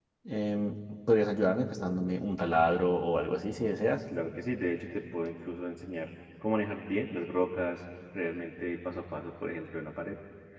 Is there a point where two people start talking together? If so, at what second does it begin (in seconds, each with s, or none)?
none